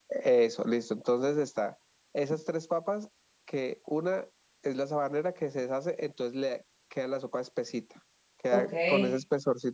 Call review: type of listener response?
listening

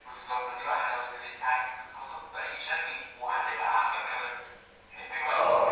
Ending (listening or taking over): taking over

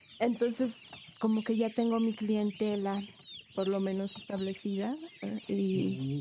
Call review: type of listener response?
taking over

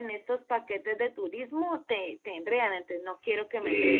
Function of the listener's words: taking over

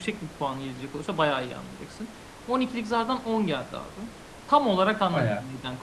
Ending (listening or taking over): listening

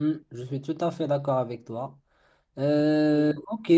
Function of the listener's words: listening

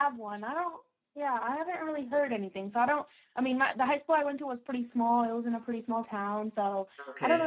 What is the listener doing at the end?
listening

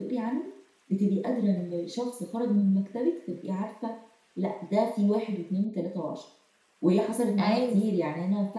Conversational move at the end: listening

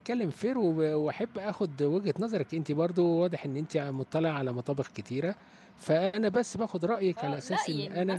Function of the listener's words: taking over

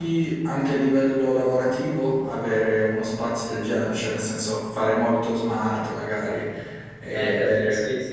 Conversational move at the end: taking over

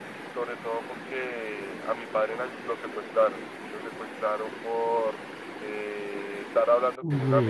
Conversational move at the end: listening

